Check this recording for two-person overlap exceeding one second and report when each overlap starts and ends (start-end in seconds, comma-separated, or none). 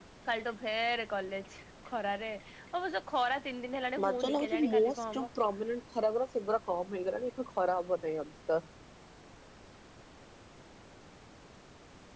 4.0-5.3